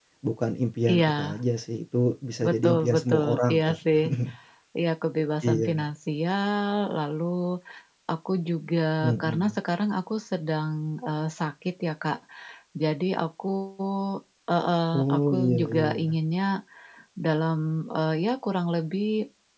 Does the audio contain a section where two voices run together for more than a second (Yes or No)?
Yes